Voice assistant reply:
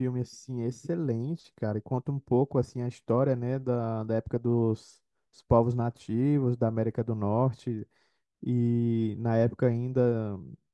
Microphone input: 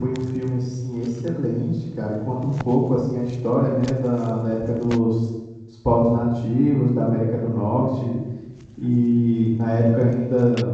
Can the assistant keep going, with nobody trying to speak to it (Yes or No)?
Yes